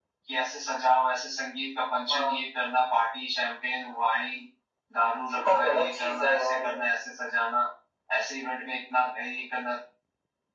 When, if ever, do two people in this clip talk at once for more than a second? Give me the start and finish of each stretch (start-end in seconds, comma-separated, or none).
5.3-6.7